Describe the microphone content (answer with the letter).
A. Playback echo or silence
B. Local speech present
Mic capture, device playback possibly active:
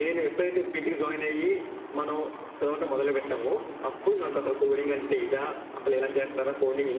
A